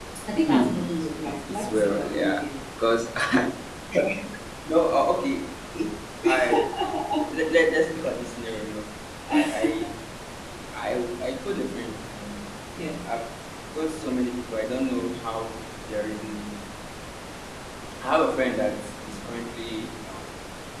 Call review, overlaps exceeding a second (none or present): present